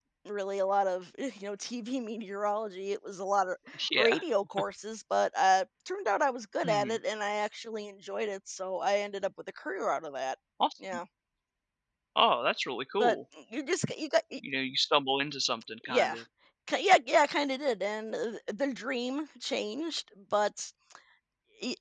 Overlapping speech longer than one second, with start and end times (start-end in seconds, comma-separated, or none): none